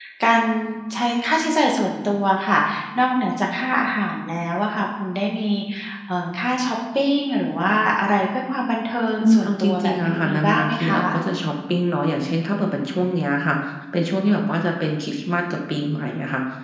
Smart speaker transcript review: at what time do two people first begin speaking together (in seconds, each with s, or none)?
9.2 s